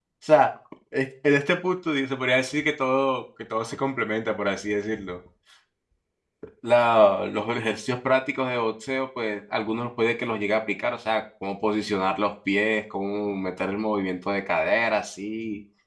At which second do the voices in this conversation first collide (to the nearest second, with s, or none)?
none